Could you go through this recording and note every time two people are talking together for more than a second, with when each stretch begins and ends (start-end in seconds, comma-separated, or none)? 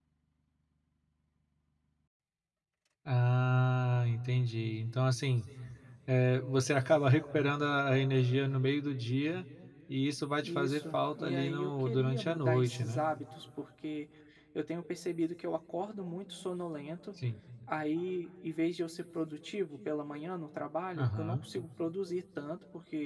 10.4-13.0